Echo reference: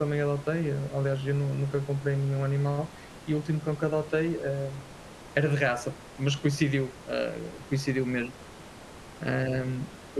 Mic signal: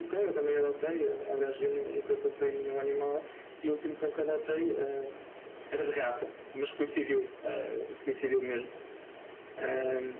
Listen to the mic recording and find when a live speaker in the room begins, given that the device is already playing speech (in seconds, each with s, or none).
none